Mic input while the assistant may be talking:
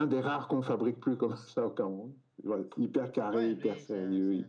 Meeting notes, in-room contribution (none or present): present